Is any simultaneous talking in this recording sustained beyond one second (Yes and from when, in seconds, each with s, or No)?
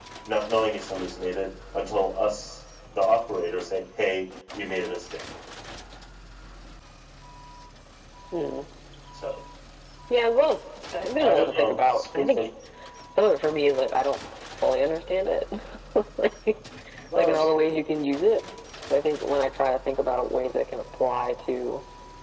Yes, from 11.2 s